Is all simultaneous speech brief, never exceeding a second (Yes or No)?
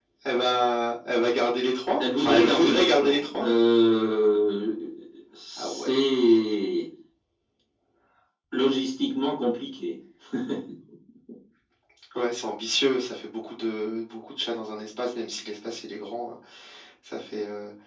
No